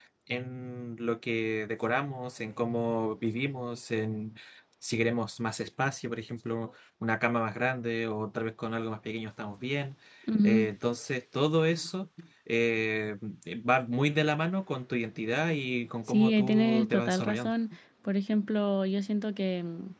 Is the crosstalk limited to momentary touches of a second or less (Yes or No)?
No